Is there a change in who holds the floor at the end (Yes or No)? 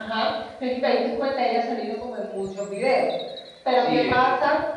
No